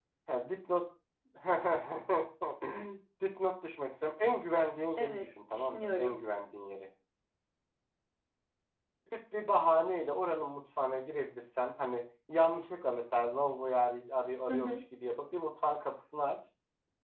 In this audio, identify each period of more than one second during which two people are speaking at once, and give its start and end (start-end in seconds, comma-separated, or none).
5.0-6.2